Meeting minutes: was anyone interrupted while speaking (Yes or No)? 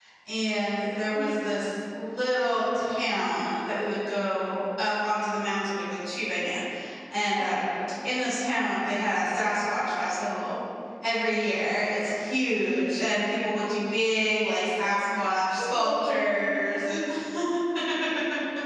Yes